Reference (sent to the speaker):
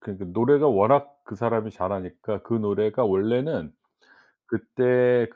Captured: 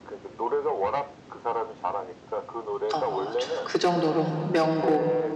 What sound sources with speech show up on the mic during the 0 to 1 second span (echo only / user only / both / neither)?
echo only